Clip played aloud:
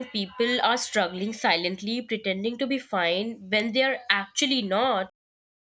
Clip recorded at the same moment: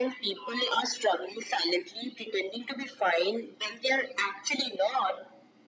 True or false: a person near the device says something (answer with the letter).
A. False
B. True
A